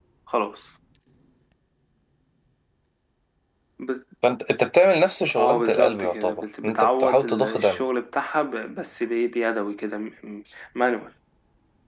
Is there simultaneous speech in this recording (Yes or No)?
Yes